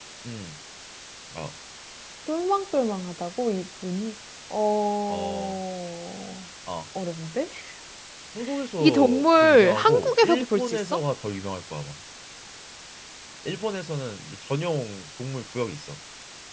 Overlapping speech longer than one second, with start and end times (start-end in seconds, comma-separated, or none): 8.8-10.8